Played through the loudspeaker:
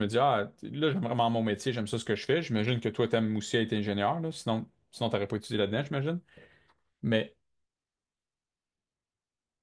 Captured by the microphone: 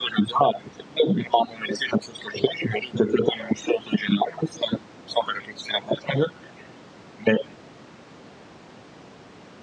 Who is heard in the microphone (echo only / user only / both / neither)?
echo only